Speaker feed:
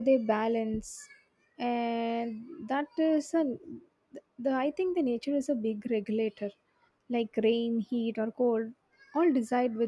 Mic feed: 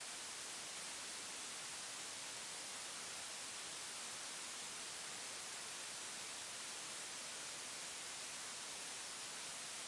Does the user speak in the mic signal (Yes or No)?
No